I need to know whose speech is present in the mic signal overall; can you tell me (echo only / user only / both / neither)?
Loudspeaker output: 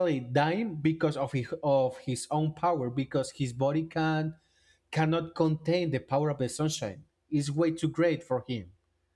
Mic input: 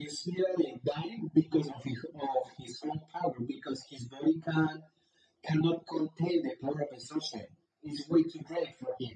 echo only